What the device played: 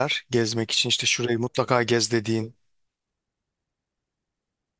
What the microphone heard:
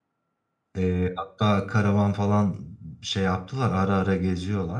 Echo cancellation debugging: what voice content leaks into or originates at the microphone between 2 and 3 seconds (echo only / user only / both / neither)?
user only